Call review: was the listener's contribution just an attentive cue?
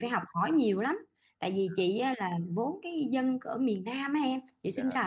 Yes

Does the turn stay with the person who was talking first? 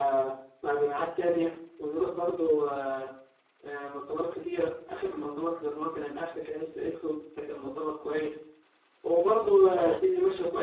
Yes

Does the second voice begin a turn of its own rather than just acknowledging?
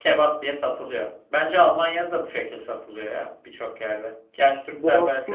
Yes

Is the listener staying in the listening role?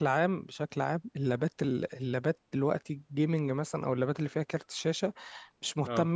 Yes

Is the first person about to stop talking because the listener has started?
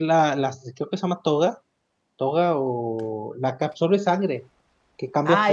Yes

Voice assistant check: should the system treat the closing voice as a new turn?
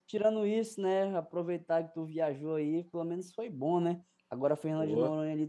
No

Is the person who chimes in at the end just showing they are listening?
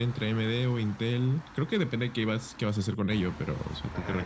No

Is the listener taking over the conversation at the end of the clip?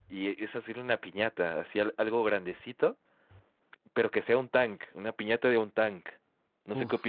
Yes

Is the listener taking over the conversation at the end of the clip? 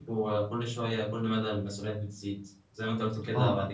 No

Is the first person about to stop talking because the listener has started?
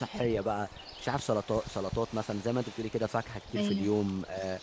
No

